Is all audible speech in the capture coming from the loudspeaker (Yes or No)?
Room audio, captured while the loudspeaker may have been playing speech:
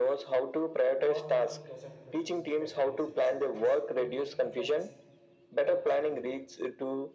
No